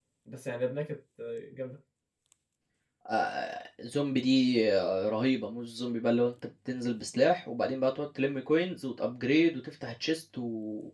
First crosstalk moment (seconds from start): none

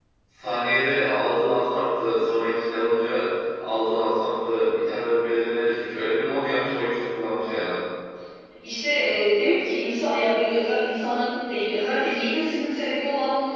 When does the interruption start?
none

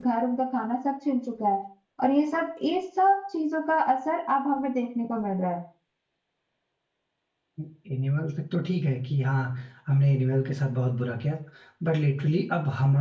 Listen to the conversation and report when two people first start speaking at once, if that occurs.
none

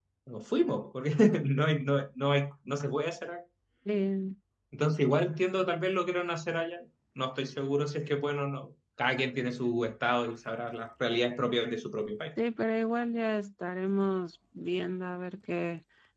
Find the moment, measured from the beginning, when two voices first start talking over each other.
none

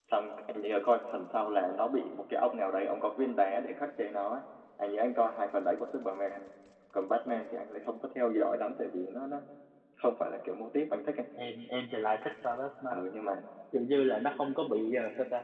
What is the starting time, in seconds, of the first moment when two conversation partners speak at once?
none

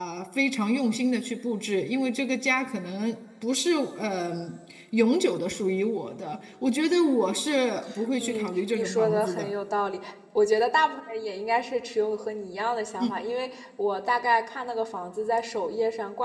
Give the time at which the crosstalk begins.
8.2 s

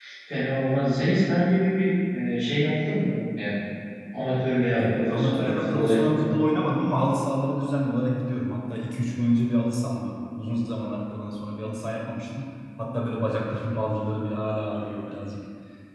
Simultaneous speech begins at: 4.8 s

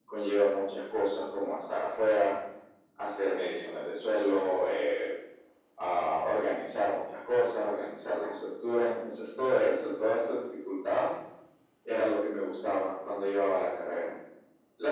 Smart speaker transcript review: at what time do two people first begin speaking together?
none

